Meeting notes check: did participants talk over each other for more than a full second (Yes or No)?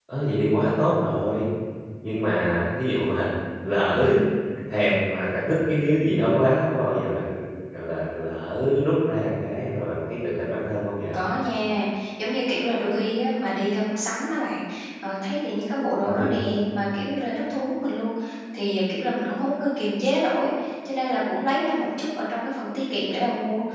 No